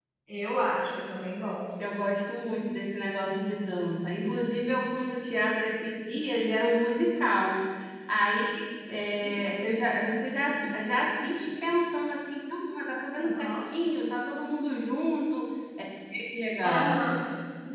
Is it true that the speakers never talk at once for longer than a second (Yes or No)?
Yes